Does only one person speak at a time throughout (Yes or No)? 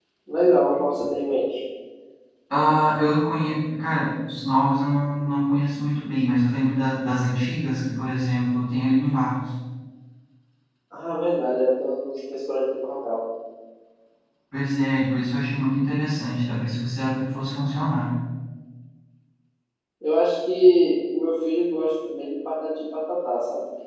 Yes